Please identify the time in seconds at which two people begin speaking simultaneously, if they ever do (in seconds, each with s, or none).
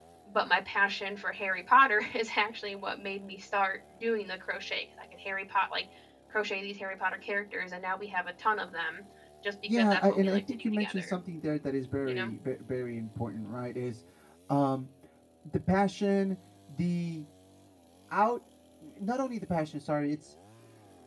9.7 s